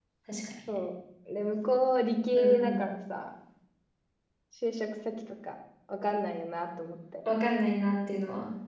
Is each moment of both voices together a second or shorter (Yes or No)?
Yes